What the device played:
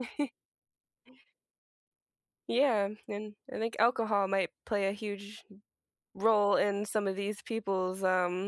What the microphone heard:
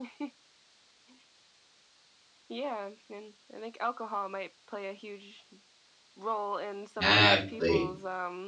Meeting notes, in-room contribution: present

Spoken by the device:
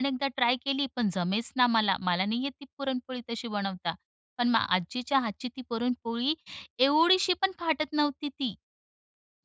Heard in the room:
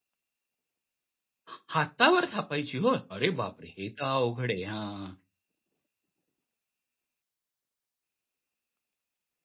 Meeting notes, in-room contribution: present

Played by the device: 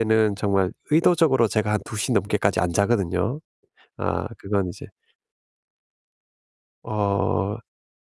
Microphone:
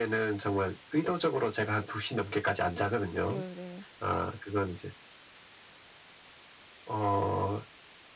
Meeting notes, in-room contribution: present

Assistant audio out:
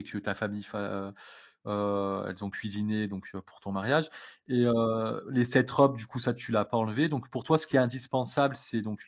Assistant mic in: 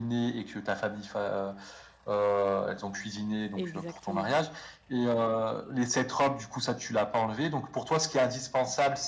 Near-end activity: present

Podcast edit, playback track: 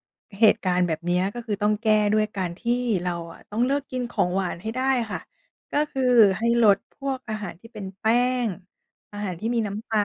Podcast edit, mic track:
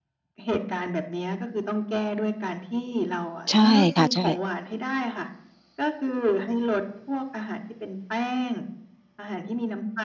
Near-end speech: present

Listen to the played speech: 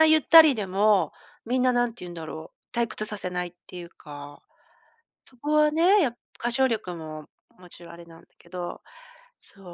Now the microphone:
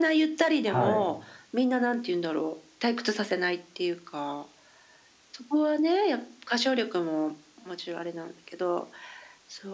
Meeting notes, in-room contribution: present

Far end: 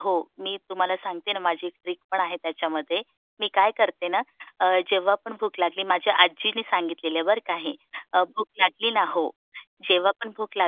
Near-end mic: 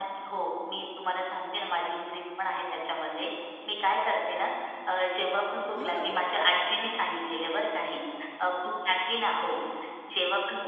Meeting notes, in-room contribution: present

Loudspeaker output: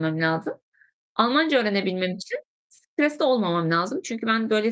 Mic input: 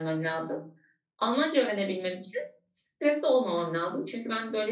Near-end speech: none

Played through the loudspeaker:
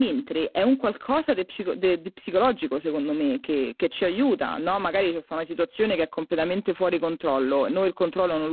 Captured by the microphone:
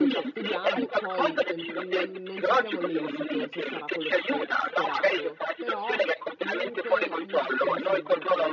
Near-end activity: present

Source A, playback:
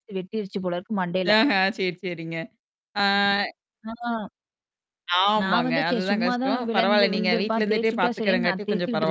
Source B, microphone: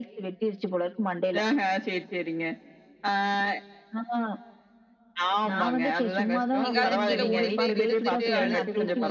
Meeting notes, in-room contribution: present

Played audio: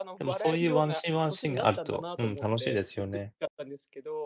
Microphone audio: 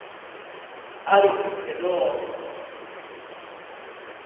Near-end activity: present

